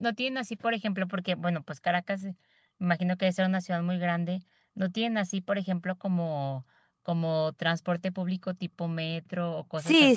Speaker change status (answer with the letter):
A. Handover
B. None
A